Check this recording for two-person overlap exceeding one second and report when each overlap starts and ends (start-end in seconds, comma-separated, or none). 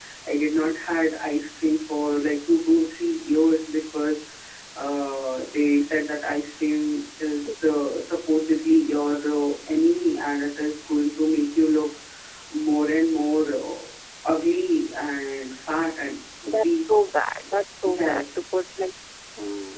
none